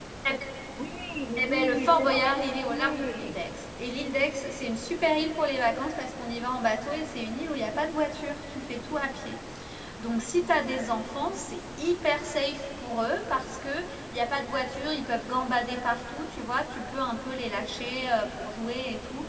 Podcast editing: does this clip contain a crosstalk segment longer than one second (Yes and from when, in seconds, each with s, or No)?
Yes, from 1.4 s